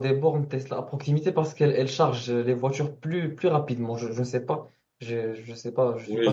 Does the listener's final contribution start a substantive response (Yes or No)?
Yes